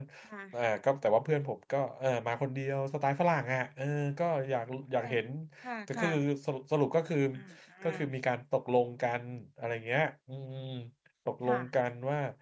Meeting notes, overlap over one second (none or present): none